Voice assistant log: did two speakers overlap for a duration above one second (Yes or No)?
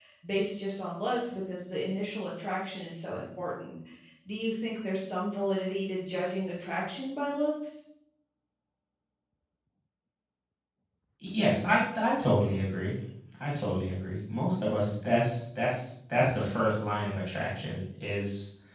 No